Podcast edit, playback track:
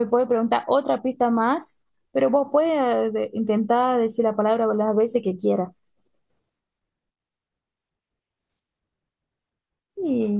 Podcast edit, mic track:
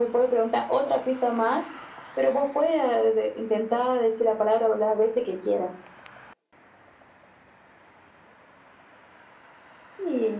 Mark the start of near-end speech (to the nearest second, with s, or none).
none